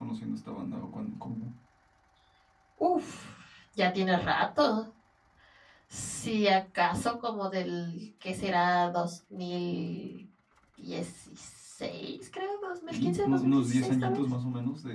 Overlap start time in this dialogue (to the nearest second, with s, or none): 13 s